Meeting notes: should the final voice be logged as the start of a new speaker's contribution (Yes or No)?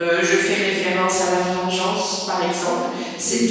No